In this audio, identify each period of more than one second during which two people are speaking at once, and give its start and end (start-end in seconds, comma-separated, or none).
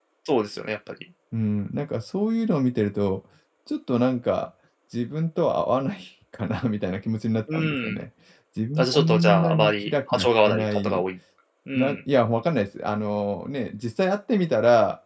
8.8-11.0